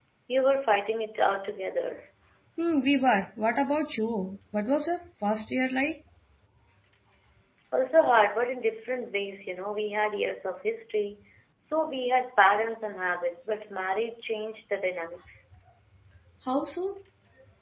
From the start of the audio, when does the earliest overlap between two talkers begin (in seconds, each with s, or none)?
none